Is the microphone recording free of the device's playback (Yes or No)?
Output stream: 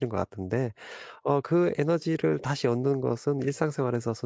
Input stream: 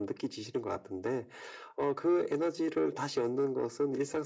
No